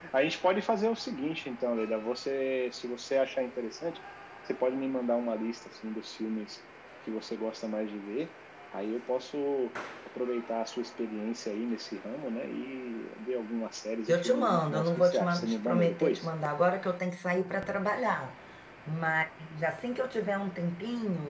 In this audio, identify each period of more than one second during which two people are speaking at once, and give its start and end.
14.1-16.3

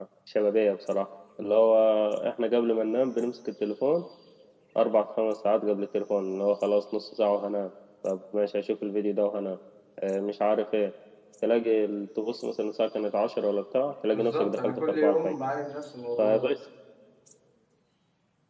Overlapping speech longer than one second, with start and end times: 14.1-15.3

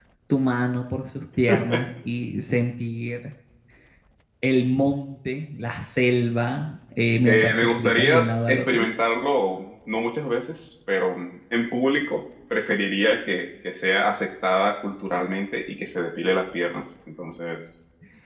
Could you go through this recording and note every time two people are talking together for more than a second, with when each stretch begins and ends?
7.3-8.9

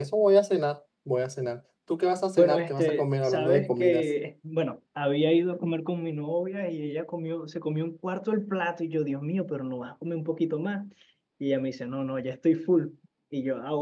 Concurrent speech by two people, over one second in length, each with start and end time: 2.4-4.0

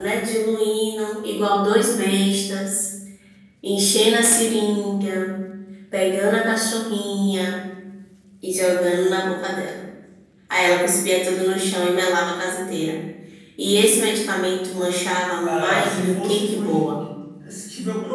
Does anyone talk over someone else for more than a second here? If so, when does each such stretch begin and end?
15.4-17.0

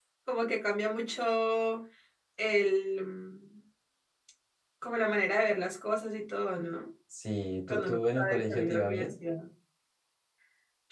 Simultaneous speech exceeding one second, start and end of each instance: 7.7-9.1

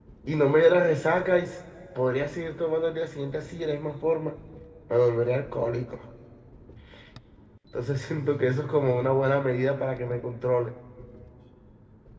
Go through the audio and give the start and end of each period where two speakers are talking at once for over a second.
none

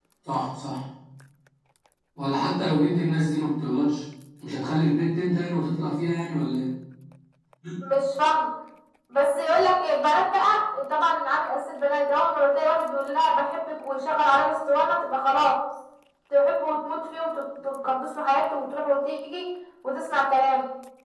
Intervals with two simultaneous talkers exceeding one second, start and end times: none

